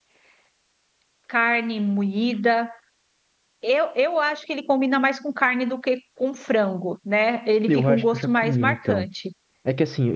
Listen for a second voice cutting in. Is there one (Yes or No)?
Yes